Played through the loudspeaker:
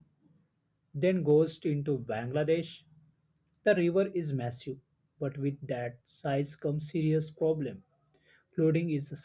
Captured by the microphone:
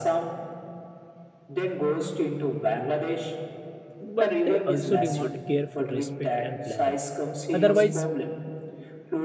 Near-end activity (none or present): present